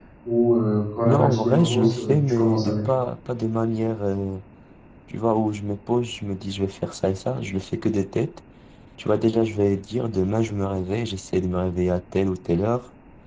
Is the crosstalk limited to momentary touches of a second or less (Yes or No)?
No